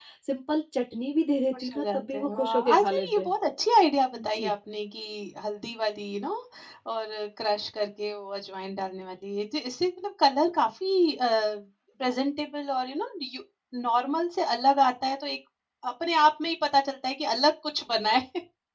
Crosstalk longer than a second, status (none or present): present